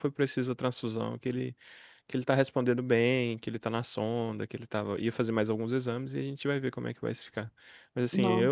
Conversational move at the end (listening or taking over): listening